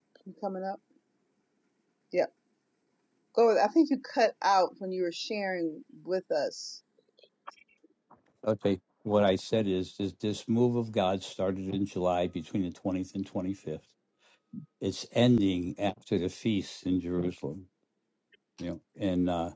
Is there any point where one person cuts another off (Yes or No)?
No